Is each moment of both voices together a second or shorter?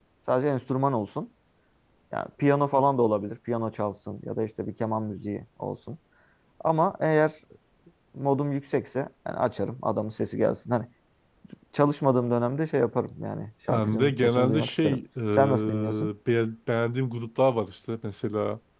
No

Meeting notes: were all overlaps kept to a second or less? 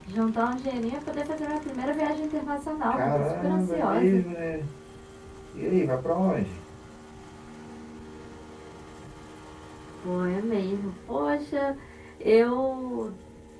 No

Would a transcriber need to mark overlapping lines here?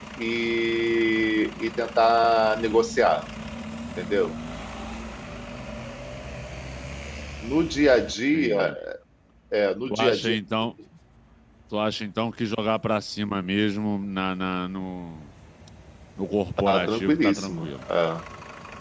Yes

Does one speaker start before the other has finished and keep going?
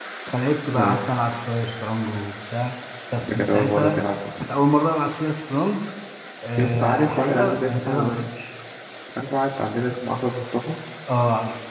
Yes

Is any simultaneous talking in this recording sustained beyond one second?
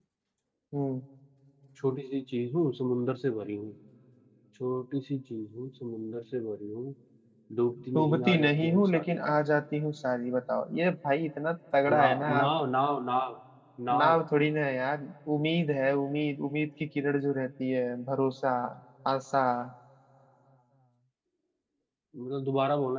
Yes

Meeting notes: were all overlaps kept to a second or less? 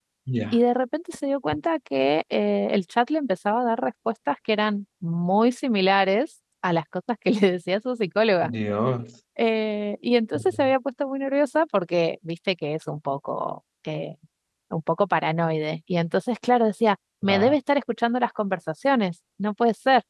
Yes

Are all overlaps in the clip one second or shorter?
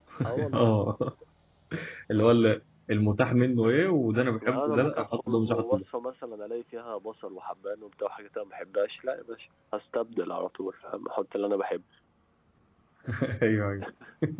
No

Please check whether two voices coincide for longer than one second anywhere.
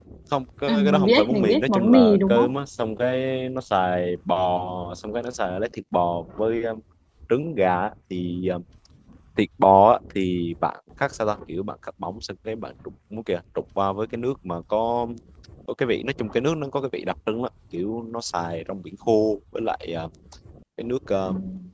Yes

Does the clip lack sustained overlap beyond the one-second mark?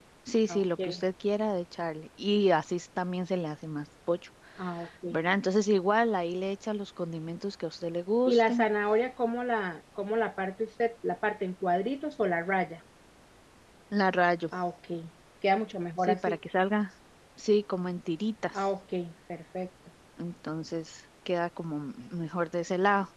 Yes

